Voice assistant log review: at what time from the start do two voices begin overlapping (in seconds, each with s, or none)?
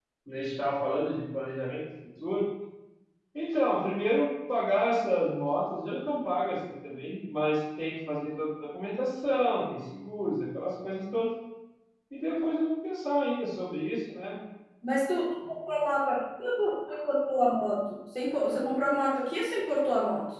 none